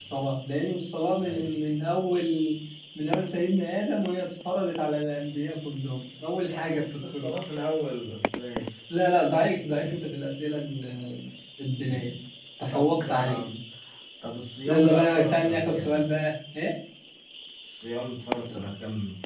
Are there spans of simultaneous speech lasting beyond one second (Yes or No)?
Yes